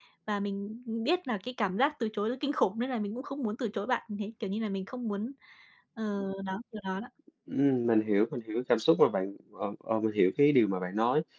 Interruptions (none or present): none